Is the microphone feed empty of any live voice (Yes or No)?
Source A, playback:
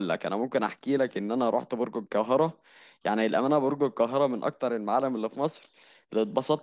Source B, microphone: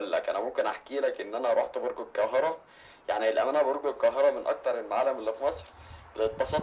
Yes